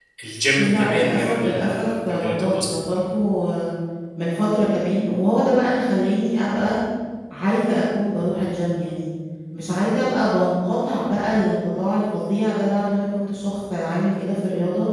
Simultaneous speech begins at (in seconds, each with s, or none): 0.6 s